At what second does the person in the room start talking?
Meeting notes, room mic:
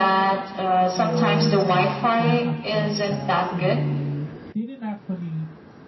1 s

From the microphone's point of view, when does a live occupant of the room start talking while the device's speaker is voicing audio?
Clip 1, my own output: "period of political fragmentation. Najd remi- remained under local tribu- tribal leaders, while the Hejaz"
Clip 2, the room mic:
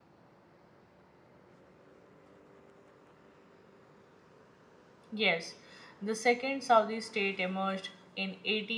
5 s

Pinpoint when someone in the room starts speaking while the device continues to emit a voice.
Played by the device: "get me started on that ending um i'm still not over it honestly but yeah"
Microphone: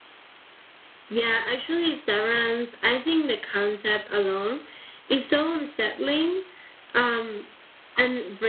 1 s

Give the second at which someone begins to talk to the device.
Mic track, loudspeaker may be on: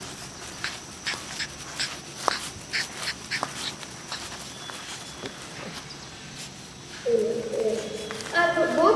7 s

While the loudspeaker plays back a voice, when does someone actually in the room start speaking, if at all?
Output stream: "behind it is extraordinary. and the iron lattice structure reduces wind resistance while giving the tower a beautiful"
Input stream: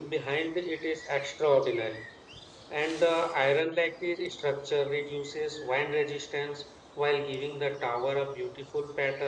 none

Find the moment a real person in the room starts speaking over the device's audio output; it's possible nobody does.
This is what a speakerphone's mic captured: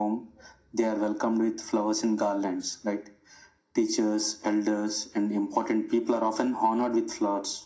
none

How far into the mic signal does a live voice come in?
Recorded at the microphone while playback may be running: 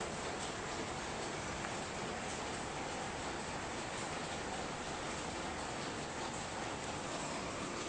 none

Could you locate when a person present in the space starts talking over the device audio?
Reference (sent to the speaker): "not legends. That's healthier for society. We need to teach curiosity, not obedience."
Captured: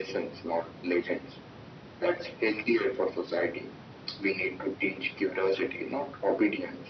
none

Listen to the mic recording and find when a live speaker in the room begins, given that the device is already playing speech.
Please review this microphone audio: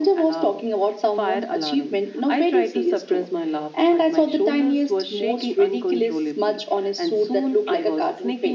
none

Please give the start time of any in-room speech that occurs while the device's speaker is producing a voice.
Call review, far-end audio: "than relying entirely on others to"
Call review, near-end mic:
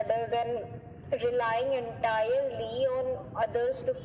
none

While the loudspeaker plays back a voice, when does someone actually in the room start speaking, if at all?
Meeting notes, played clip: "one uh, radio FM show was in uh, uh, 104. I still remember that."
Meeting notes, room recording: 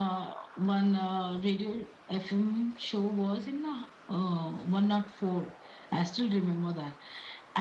none

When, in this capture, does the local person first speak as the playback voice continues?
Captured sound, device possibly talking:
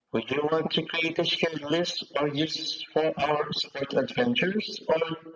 none

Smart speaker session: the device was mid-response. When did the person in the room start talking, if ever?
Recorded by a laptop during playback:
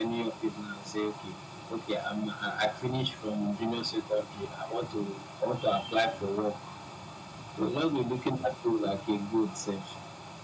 none

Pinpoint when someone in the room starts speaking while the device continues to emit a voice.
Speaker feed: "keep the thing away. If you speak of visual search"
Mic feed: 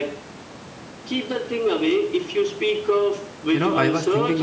4 s

